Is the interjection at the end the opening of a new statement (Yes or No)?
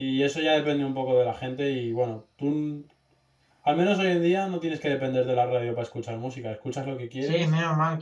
Yes